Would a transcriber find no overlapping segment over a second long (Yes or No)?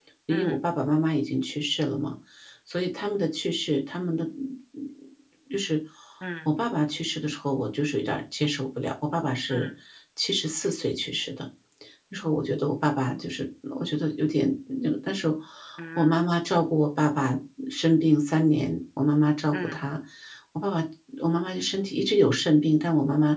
Yes